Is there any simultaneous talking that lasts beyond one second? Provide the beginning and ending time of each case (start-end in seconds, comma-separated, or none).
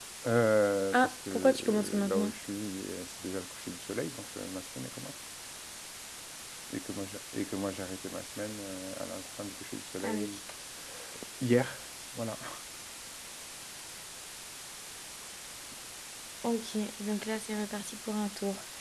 0.9-2.3